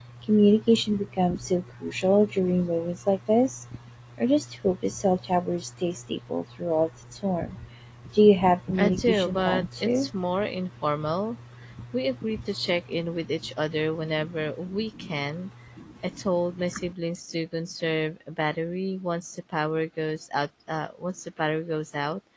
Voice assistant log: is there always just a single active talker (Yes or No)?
No